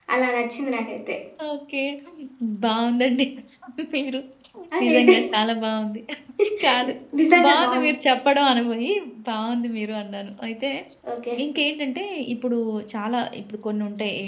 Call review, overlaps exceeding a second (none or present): none